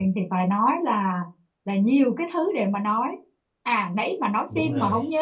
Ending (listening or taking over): listening